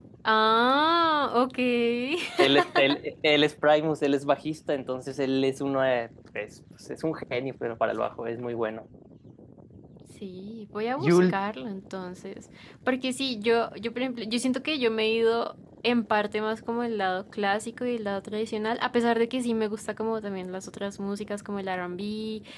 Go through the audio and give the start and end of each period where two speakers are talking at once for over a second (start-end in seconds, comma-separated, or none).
none